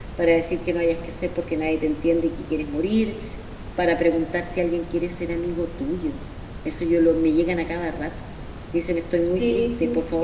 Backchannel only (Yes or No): Yes